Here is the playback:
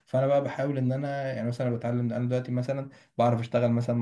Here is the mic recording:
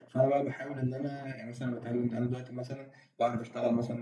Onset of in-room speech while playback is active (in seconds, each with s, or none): none